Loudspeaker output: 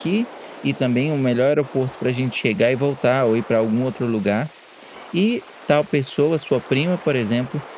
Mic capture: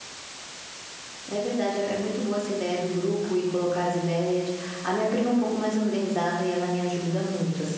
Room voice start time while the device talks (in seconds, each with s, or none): 1.3 s